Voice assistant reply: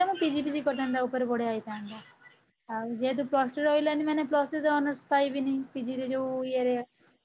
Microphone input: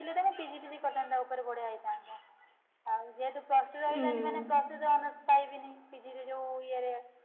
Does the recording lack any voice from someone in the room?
No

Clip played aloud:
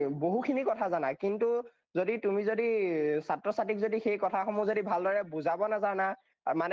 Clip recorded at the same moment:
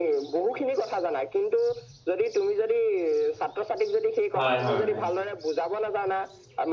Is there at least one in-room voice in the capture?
Yes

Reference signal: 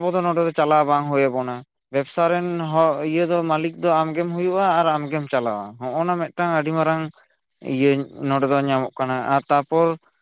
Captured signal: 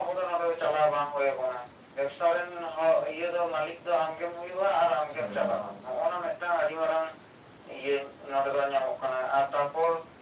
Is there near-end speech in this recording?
Yes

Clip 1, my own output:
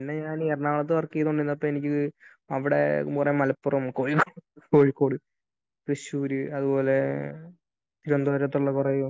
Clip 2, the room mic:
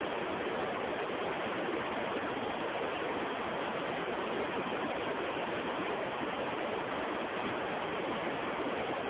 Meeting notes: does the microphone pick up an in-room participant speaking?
No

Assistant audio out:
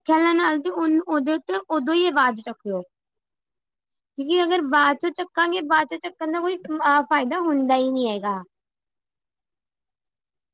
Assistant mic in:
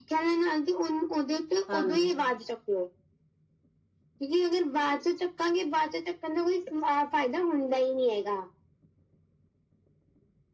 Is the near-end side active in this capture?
Yes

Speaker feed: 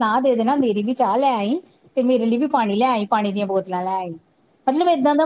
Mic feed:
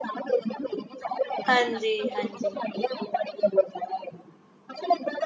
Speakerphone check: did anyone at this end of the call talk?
Yes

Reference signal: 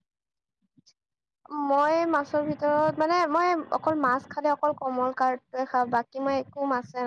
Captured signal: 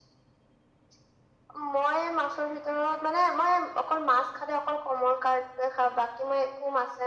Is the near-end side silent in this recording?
Yes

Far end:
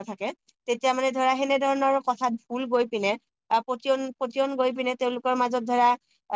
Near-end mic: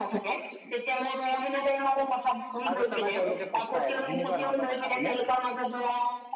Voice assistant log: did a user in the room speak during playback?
Yes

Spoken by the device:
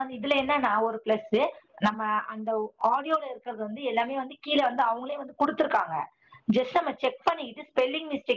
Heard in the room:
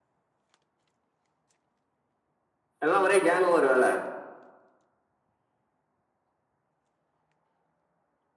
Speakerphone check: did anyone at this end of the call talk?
Yes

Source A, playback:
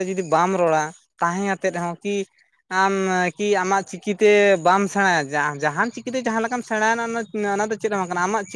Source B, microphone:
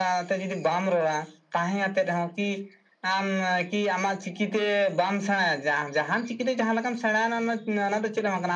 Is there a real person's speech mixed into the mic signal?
No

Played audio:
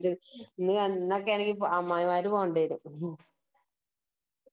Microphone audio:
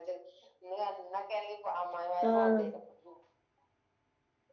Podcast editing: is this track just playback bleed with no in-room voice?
No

